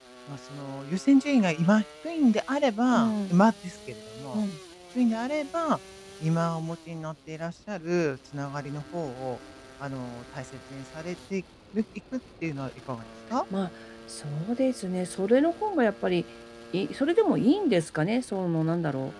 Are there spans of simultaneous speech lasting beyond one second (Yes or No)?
No